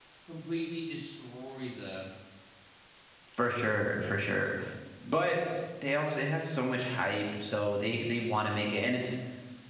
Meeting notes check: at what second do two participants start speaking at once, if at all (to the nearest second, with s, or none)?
none